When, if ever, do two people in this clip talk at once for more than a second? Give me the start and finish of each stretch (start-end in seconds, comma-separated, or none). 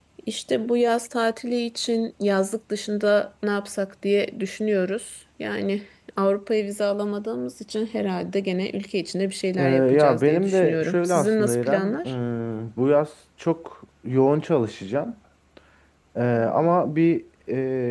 9.6-12.2